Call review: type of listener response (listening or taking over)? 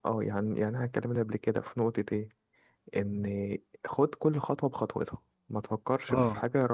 taking over